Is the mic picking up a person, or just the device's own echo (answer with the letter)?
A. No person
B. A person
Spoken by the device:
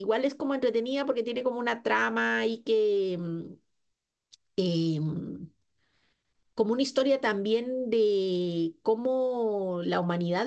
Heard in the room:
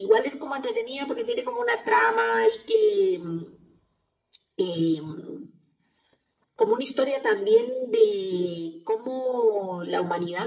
A